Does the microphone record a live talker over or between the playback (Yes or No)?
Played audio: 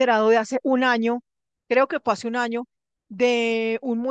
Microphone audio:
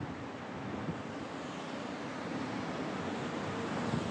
No